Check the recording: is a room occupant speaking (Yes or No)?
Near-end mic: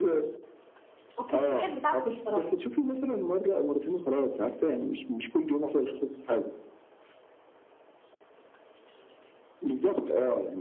Yes